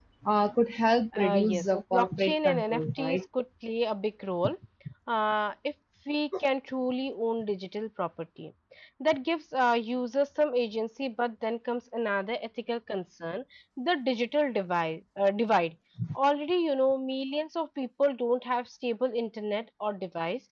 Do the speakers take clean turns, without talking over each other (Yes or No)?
No